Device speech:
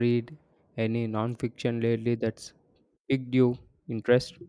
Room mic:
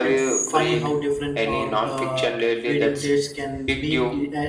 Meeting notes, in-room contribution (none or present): present